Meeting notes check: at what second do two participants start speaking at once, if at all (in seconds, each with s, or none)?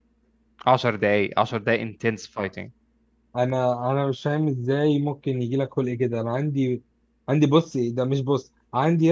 none